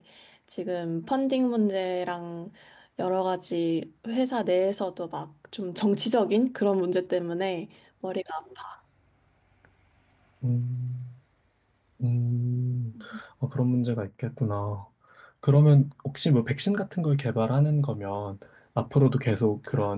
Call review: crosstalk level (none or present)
none